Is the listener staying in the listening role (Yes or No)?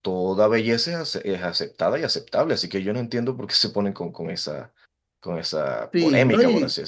No